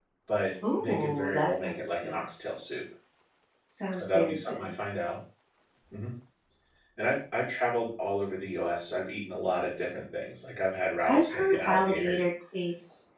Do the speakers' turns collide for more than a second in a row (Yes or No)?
Yes